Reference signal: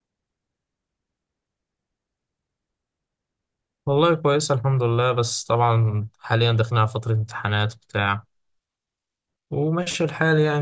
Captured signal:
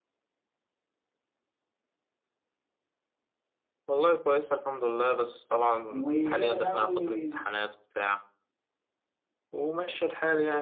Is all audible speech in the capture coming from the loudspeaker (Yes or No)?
No